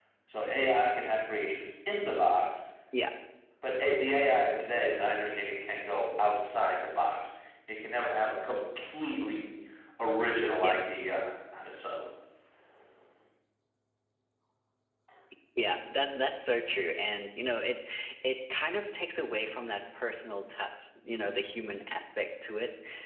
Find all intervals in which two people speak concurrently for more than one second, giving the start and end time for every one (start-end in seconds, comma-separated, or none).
none